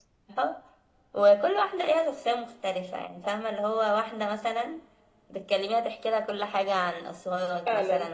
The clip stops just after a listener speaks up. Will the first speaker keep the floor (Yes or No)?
No